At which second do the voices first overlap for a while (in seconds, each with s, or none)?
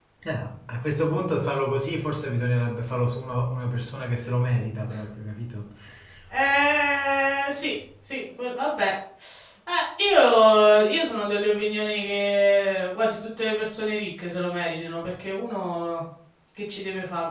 none